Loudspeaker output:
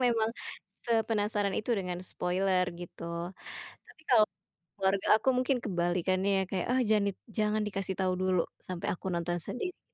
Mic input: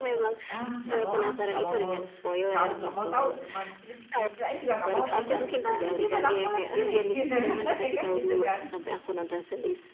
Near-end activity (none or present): present